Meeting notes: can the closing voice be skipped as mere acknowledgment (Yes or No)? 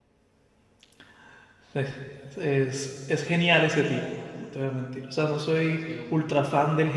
Yes